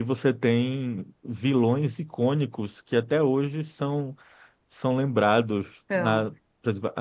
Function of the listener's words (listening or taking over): listening